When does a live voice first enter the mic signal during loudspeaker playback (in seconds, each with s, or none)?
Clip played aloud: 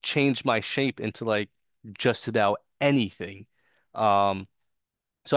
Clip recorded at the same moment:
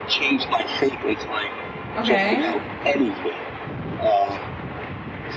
2.0 s